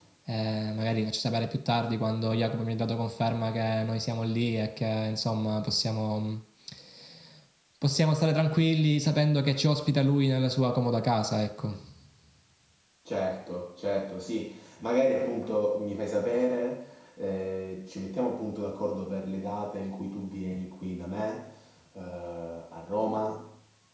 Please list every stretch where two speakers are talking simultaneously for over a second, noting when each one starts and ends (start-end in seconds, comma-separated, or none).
none